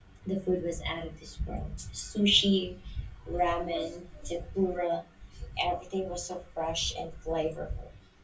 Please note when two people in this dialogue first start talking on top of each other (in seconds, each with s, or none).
none